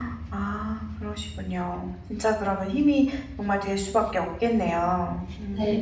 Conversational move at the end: taking over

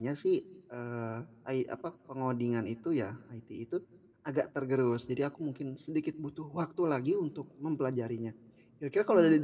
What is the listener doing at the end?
listening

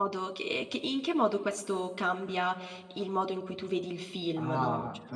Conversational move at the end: taking over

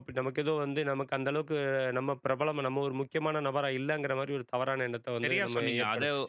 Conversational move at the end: taking over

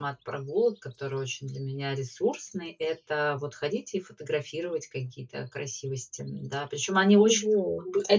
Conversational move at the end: taking over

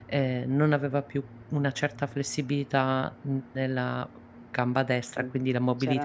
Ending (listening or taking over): taking over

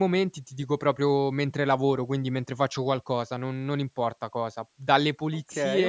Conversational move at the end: listening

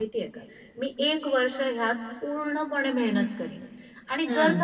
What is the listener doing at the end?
listening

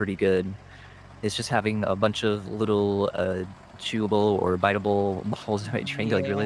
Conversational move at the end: taking over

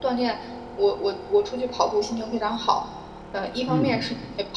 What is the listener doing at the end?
listening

